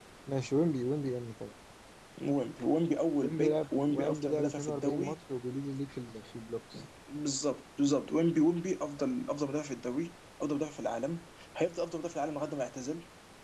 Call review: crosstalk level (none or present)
present